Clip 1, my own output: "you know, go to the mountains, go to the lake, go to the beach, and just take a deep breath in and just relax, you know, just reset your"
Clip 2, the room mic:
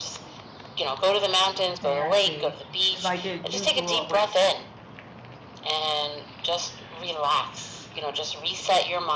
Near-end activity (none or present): present